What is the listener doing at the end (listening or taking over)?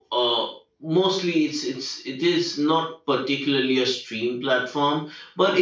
listening